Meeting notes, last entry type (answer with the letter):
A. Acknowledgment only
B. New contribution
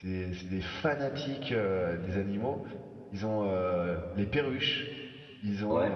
A